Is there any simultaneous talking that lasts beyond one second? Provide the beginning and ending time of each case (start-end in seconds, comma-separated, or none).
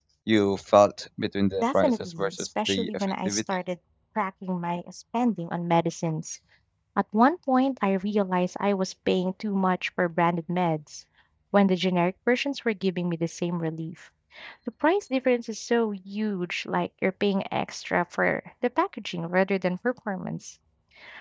1.6-3.4